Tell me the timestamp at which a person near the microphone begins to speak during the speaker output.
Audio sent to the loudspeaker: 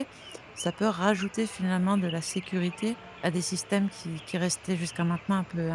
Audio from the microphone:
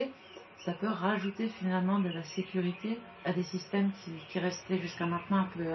none

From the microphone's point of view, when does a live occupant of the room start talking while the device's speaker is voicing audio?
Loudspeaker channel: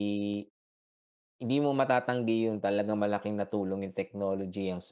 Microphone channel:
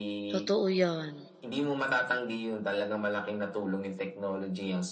0 s

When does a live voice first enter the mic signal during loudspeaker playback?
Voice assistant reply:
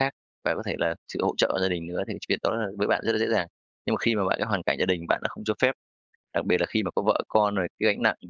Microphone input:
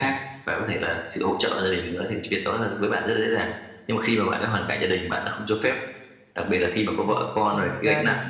7 s

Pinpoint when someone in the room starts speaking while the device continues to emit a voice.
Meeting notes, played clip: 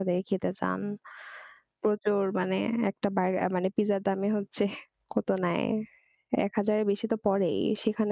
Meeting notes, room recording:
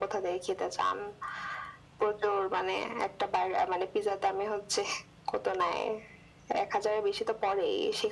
none

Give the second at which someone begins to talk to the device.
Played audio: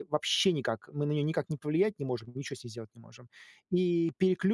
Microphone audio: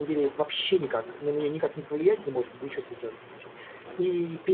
none

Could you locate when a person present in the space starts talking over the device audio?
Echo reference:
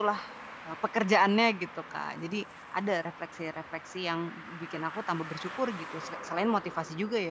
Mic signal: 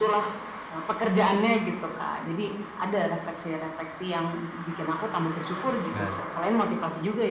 6 s

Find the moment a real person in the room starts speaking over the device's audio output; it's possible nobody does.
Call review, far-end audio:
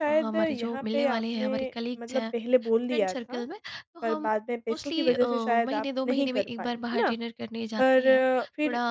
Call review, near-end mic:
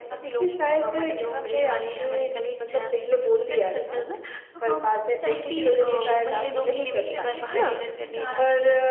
5 s

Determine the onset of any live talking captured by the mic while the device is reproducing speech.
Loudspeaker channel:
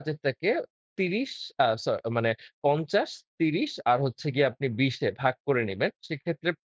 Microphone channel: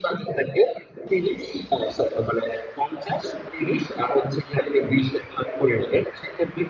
none

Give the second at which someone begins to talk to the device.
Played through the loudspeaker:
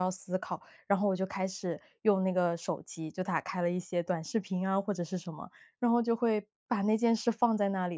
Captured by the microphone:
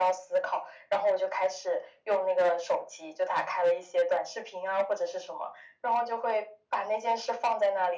none

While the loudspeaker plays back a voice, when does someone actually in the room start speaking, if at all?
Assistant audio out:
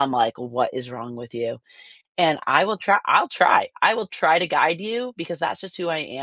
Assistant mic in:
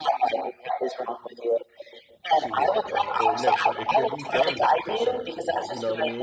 2 s

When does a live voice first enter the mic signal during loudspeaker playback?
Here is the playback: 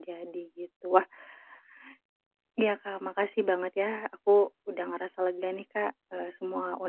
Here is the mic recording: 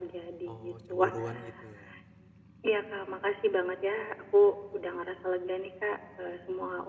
0 s

